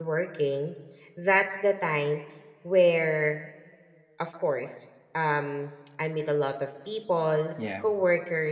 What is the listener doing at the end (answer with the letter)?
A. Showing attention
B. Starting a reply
A